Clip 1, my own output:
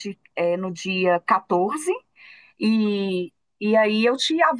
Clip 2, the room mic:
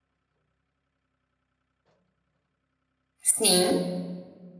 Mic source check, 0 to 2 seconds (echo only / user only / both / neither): neither